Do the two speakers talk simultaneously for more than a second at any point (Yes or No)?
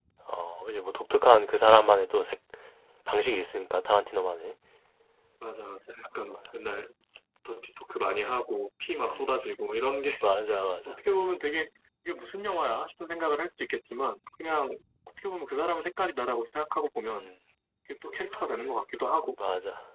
No